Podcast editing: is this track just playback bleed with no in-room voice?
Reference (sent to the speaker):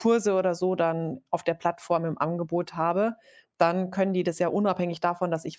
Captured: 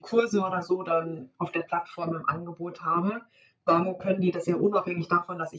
Yes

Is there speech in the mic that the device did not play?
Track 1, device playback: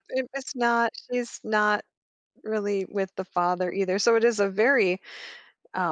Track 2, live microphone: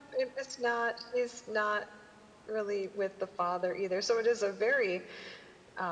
No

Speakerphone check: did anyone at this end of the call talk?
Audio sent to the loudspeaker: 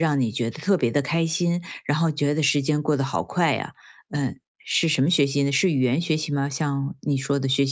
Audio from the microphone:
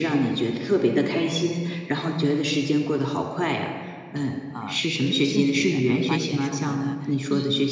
Yes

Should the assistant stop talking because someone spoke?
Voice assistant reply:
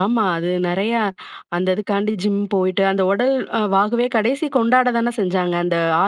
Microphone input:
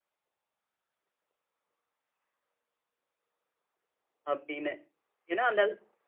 Yes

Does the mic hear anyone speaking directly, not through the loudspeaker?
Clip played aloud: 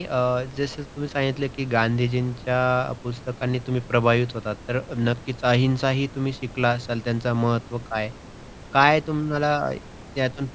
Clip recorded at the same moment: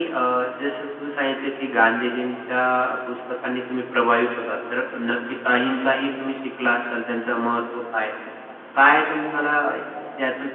No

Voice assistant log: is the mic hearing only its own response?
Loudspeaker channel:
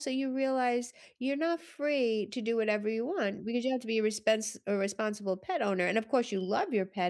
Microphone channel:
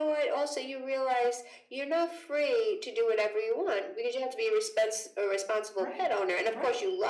No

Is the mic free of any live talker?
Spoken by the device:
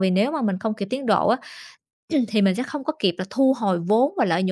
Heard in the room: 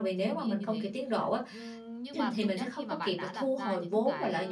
No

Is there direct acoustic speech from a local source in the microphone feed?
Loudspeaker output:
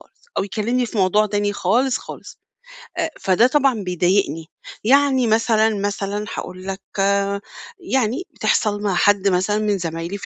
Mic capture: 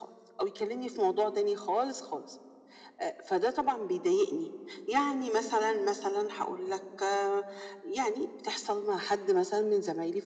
No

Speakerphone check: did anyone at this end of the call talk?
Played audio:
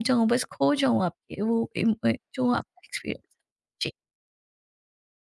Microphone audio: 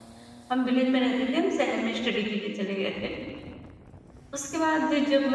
Yes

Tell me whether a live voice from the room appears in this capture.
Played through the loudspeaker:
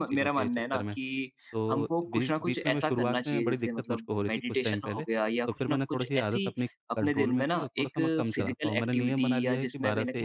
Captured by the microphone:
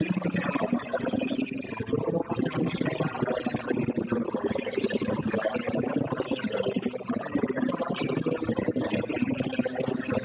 No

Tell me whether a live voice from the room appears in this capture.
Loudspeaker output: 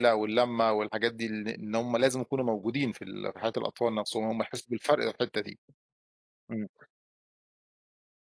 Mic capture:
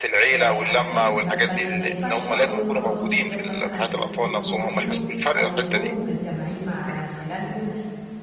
Yes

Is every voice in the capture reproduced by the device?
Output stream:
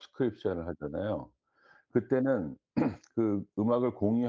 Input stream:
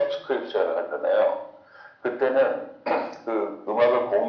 Yes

